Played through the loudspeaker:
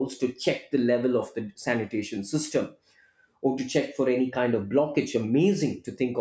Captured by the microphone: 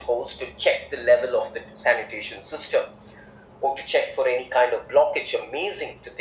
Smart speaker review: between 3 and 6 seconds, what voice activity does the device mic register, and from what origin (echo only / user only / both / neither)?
echo only